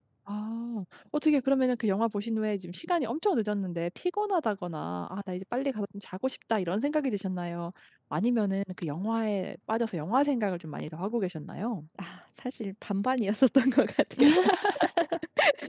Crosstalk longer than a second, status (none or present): none